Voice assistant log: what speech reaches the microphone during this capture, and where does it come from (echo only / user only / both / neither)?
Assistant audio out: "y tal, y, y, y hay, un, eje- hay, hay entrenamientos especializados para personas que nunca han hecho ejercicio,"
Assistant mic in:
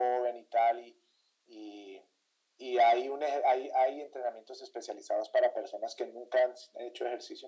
echo only